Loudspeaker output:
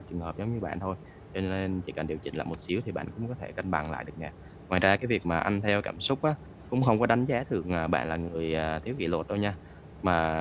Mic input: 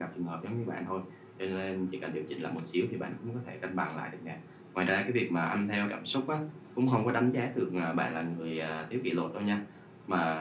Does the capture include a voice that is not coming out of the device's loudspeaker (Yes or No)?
No